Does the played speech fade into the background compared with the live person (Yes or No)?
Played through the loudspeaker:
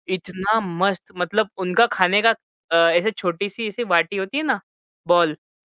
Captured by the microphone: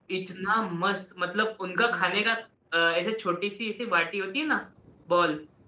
No